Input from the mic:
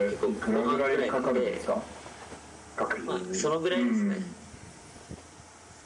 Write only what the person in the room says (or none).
none